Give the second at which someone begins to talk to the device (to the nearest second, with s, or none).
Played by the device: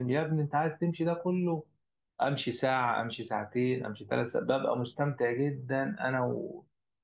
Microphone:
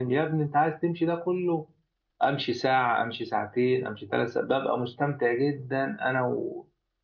none